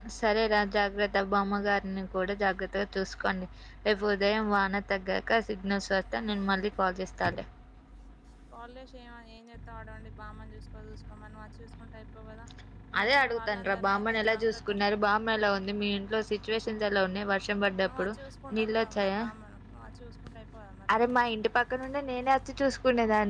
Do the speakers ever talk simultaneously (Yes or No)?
Yes